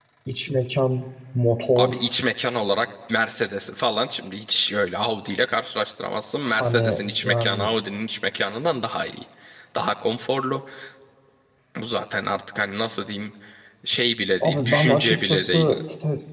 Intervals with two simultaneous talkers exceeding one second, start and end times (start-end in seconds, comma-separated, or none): 6.4-7.7, 14.4-15.7